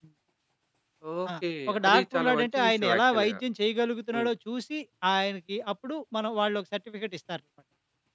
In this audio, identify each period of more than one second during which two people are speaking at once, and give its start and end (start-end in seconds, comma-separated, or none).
1.7-3.4